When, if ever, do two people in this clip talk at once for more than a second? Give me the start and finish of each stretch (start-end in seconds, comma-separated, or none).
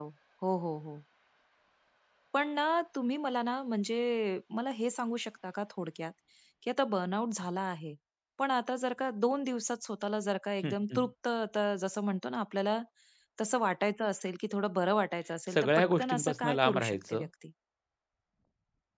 15.5-17.3